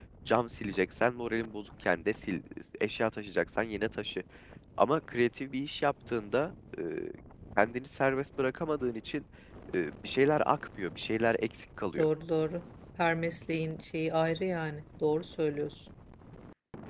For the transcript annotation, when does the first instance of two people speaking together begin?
none

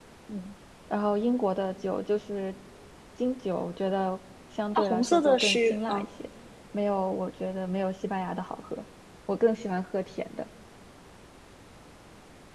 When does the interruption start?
4.8 s

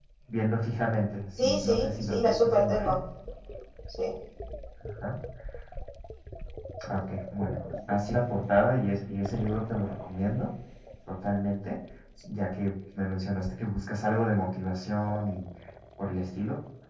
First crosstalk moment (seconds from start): 1.4 s

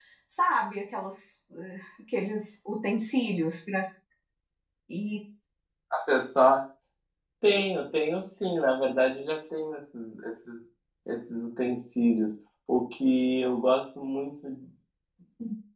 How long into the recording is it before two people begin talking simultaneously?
none

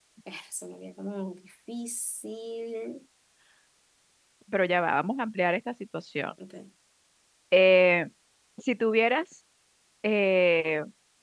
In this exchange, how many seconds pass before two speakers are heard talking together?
none

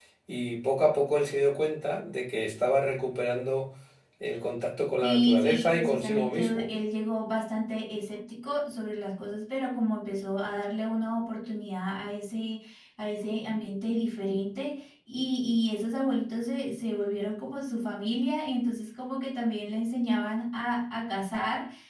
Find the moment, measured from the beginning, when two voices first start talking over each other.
5.0 s

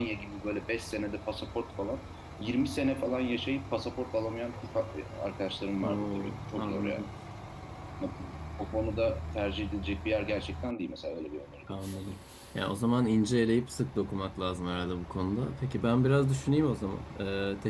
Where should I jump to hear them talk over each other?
5.8 s

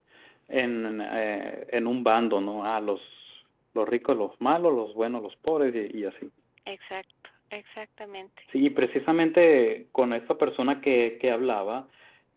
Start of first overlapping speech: none

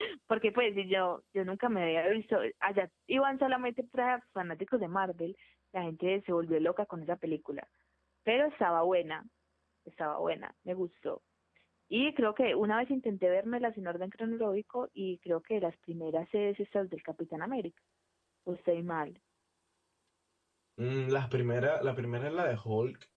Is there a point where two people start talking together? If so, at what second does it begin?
none

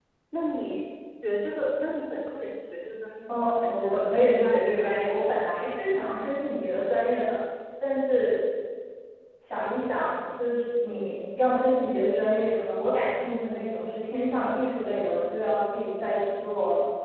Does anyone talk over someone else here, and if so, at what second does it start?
3.3 s

